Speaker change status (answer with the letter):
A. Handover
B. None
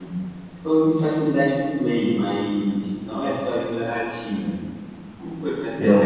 B